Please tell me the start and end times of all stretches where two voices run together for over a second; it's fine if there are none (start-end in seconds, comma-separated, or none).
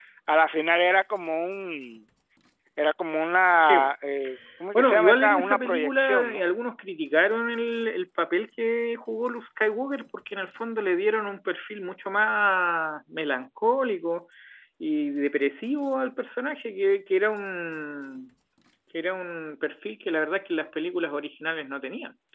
4.7-6.4